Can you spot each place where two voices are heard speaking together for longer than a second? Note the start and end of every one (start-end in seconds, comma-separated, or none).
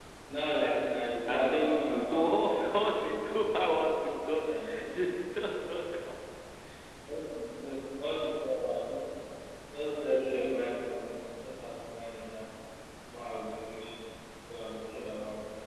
1.3-3.4